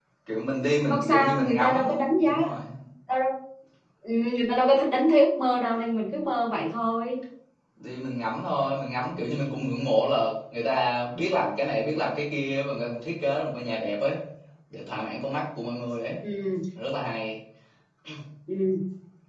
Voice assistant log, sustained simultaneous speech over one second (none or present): present